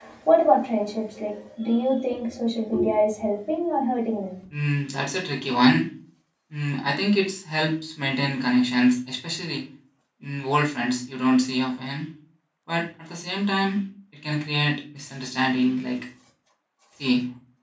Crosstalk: none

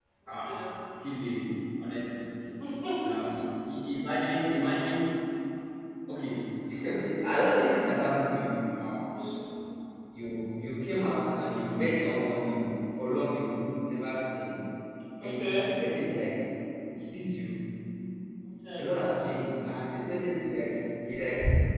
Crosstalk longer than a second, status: none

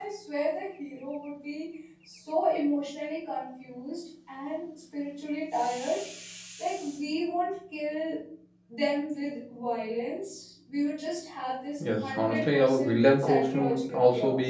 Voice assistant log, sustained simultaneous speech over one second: present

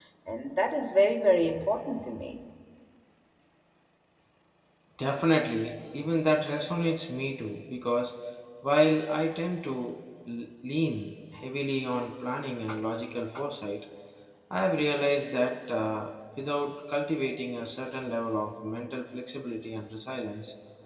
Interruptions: none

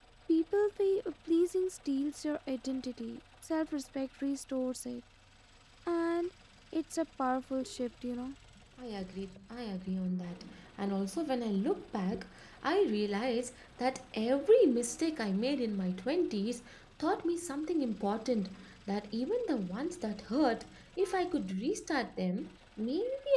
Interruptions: none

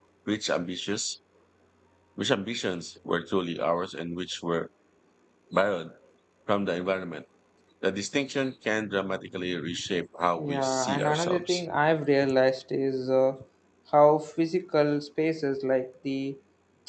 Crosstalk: present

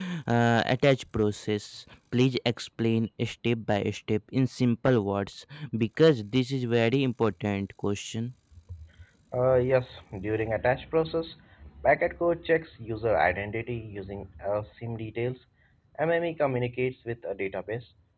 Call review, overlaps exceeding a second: none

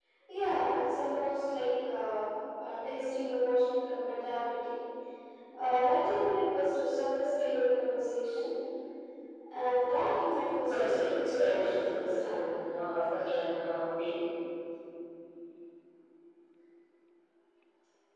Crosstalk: present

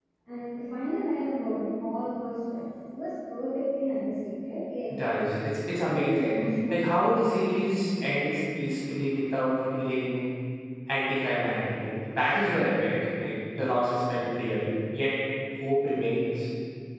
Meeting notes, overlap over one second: none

